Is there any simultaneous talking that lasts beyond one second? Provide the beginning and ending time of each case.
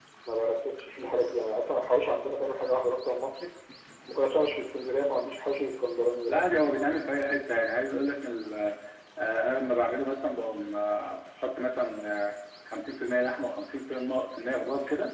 none

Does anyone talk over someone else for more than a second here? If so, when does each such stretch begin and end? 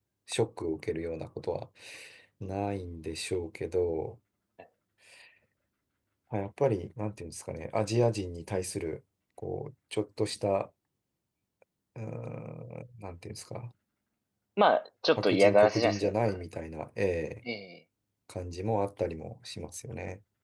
15.2-16.4

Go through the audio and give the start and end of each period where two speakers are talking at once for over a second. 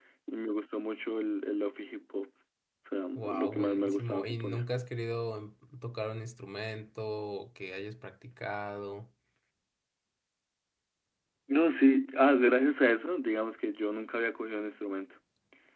3.2-4.7

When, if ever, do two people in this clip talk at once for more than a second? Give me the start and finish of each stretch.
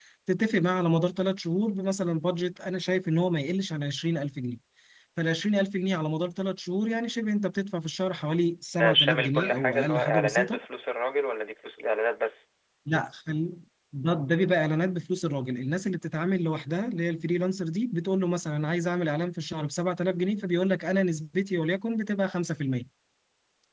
8.7-10.6

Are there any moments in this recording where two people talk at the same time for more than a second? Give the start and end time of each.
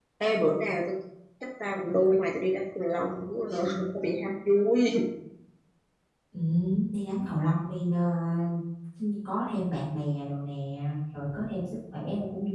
none

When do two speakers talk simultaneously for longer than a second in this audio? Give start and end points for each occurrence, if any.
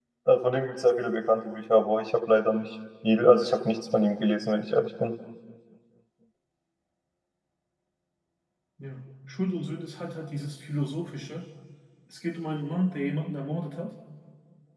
none

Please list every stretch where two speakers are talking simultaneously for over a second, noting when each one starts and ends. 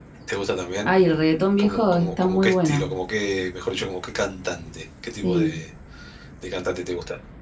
1.6-2.9

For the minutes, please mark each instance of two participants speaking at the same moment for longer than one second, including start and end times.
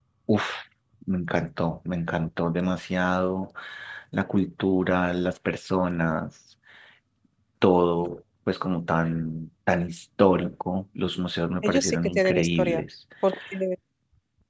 11.6-12.8

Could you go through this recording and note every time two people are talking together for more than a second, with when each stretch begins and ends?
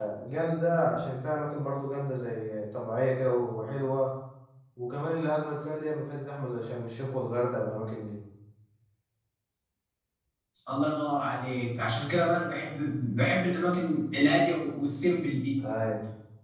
none

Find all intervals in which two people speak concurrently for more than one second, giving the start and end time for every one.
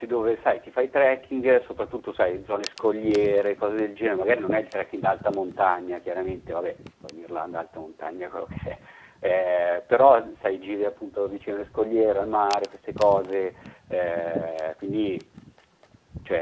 none

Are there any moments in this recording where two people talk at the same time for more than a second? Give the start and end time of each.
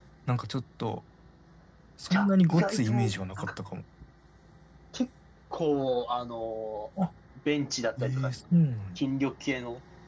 2.1-3.5

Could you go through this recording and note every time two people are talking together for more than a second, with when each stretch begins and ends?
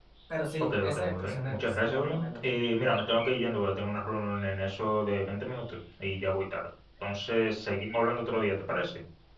0.6-2.3

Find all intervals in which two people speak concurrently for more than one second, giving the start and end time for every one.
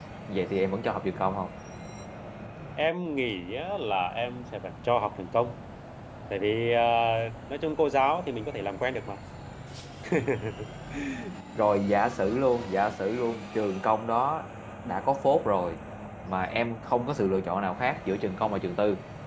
none

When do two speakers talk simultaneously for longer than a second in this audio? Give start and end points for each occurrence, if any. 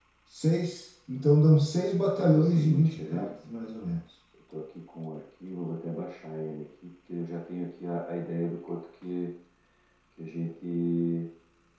2.0-3.3

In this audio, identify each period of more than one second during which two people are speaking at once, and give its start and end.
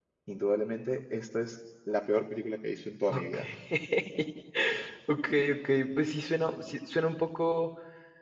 none

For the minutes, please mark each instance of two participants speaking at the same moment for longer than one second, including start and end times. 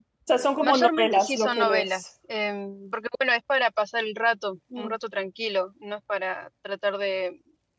0.6-2.1

